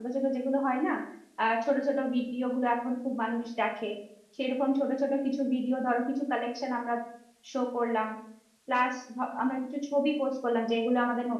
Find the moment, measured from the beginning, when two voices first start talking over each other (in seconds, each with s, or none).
none